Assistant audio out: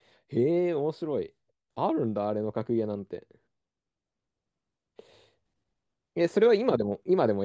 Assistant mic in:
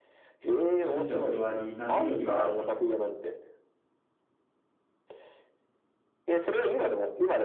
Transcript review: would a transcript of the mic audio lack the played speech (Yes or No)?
No